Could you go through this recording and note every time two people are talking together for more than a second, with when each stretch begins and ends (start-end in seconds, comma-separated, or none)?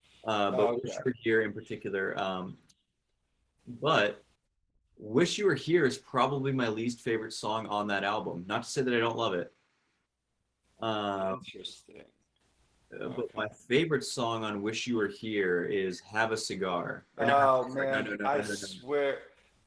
17.2-18.7